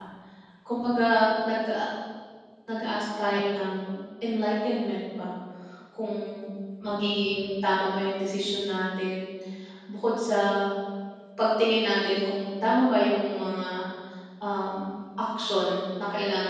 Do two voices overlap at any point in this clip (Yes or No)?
No